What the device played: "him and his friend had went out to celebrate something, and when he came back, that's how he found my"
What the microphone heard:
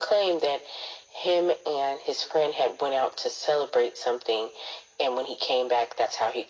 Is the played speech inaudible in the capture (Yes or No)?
No